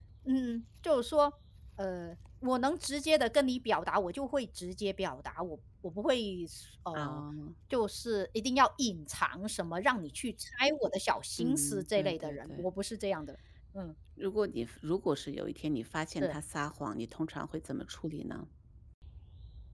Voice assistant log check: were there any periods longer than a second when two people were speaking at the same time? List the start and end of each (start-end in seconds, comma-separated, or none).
11.4-12.7